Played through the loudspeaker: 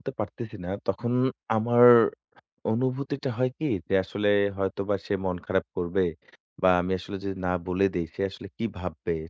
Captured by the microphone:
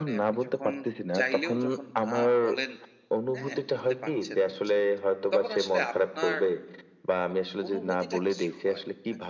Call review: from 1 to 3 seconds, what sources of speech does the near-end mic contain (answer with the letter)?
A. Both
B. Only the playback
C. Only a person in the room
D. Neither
A